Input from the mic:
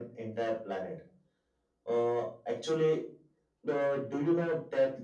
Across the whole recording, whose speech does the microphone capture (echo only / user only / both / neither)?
echo only